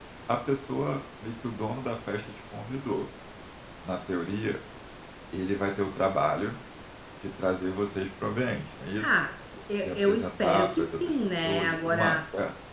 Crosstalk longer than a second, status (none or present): present